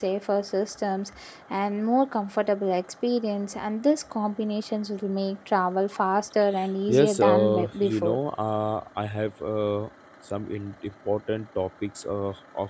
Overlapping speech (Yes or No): Yes